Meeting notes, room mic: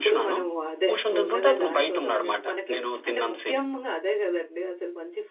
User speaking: Yes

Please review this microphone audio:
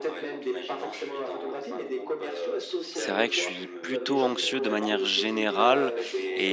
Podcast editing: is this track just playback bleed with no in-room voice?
No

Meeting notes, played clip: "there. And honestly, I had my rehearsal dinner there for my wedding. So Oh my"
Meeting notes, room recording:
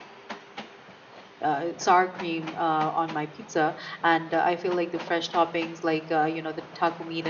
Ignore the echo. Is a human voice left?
Yes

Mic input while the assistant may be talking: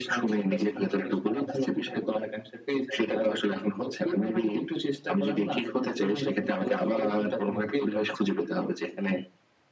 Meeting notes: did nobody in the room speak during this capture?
Yes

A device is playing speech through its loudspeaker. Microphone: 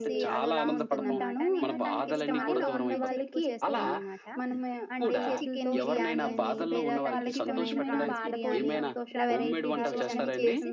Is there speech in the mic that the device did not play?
Yes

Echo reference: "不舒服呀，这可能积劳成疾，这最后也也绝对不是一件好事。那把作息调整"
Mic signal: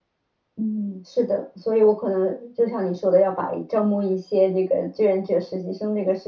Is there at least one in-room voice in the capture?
Yes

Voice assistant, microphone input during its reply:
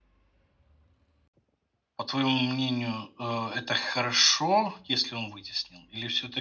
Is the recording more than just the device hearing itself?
Yes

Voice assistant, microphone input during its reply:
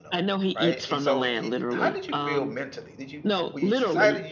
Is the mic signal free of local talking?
No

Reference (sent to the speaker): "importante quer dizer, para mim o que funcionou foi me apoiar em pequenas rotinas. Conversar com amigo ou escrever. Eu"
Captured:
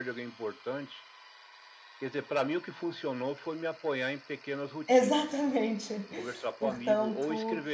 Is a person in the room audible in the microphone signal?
Yes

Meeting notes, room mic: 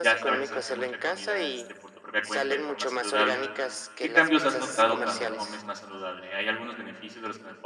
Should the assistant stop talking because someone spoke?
Yes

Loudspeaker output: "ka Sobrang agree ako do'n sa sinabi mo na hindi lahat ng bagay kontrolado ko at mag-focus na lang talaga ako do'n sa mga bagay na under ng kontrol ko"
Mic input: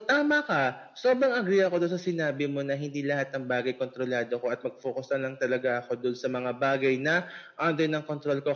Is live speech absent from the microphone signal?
Yes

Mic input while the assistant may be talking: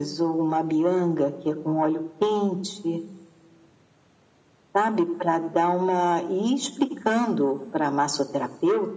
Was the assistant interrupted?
No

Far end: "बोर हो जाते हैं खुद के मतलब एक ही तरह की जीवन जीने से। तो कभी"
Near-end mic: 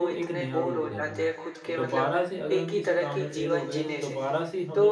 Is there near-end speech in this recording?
Yes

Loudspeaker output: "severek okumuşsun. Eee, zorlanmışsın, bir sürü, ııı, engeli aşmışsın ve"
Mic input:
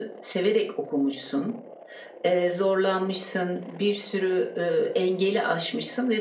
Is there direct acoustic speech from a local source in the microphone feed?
No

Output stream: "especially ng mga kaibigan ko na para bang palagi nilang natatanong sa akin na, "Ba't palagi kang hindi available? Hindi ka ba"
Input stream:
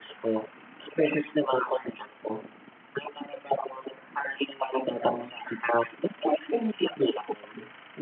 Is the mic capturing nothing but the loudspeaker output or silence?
Yes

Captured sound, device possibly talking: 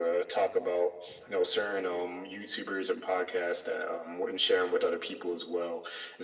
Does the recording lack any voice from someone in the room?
Yes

